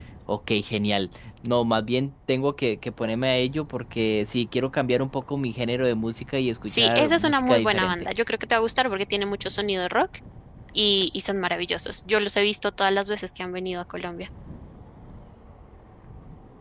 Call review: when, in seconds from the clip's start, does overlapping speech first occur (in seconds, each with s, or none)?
6.7 s